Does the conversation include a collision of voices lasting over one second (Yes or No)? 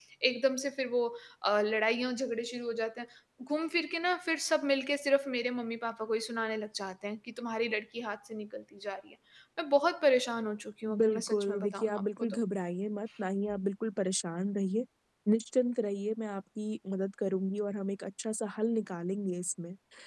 Yes